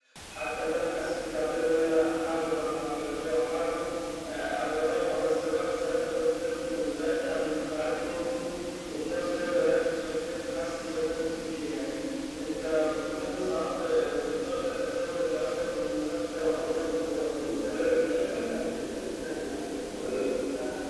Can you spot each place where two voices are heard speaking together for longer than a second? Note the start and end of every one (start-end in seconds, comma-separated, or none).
16.3-18.3